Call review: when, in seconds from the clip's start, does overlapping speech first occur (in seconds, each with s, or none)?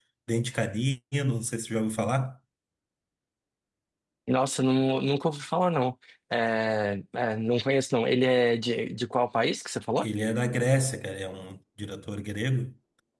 none